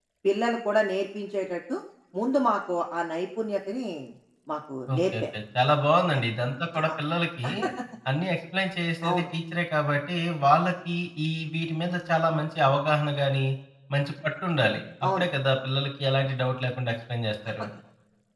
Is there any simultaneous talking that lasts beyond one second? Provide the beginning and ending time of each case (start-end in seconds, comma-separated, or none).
none